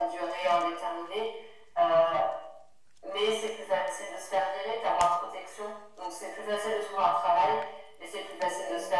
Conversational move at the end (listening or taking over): listening